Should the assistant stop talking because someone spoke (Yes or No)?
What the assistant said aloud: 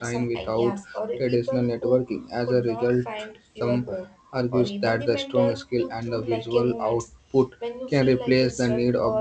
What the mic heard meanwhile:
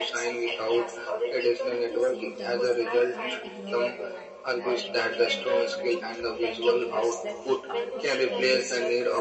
Yes